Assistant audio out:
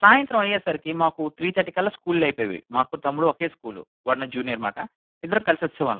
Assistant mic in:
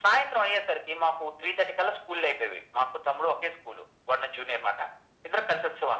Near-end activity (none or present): none